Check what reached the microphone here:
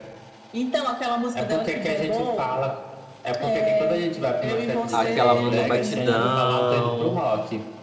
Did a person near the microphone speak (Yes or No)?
Yes